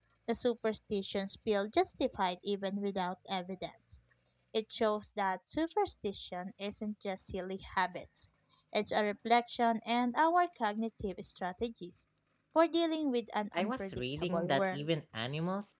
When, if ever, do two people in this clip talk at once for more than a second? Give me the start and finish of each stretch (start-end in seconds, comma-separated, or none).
13.5-14.9